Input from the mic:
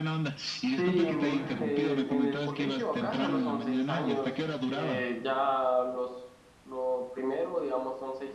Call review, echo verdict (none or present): present